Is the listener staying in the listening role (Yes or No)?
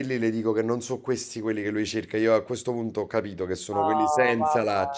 No